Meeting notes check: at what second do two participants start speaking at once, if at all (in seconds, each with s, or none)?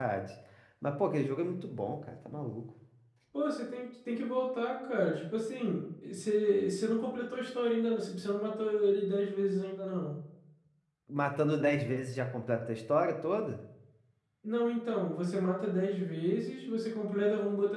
none